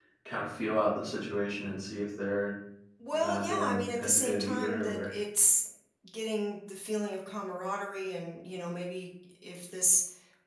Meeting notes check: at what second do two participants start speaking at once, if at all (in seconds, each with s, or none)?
3.1 s